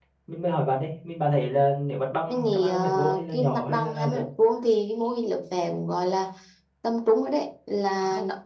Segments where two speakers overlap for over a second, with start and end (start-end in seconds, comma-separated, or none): 2.3-4.2